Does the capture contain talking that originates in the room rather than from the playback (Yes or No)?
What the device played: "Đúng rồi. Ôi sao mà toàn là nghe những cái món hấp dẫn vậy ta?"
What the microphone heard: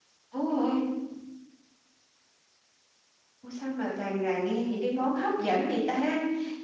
No